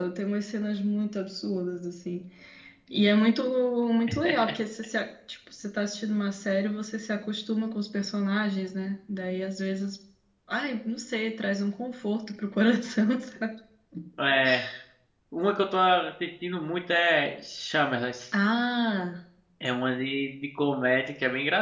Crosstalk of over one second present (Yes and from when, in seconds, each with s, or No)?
No